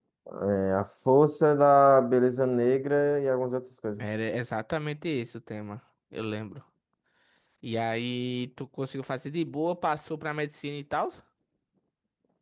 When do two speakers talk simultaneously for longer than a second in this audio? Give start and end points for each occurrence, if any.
none

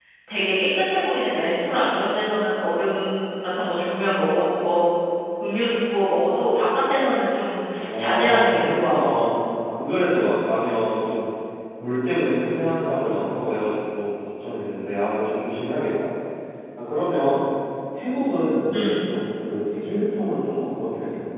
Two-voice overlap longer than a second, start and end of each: 7.8-9.0

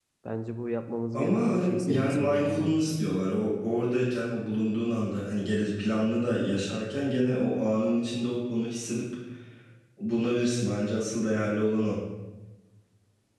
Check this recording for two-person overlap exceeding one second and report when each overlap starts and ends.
1.1-2.8

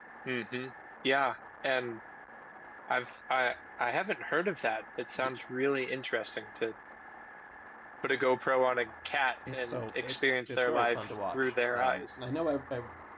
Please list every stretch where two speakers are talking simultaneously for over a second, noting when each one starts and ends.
9.5-12.1

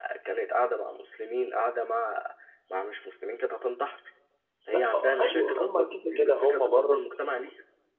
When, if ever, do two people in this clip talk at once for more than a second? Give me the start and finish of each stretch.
4.7-7.0

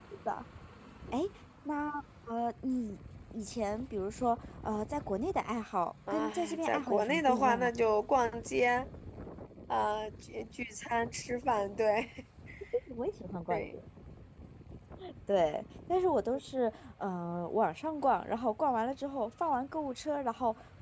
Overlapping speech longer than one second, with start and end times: 6.1-7.7

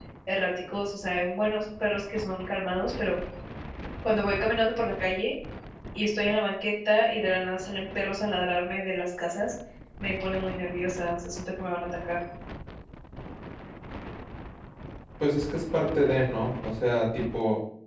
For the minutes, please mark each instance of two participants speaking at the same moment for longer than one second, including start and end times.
none

